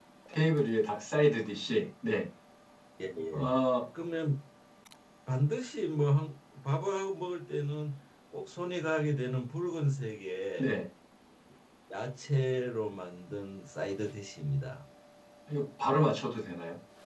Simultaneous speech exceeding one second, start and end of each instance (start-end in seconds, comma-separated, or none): none